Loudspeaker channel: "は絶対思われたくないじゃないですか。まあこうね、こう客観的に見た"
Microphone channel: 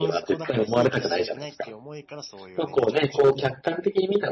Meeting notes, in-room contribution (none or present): present